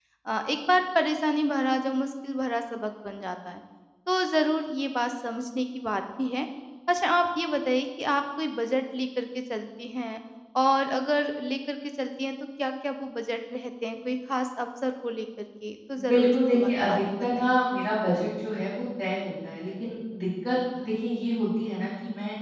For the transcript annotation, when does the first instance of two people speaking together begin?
16.1 s

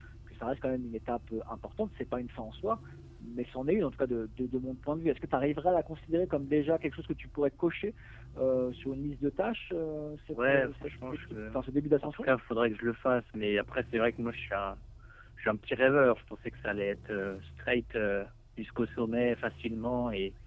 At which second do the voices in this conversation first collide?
10.3 s

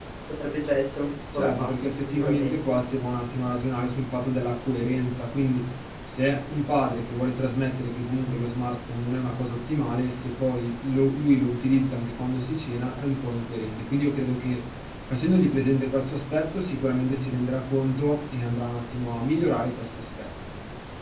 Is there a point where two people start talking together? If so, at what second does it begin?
1.3 s

